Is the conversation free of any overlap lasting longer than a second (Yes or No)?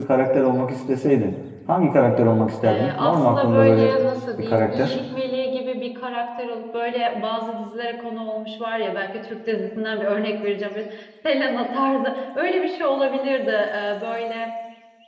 No